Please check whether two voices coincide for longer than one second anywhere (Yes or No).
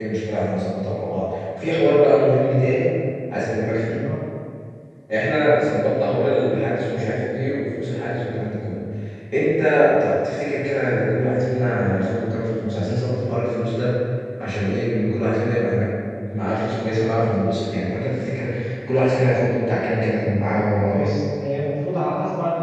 No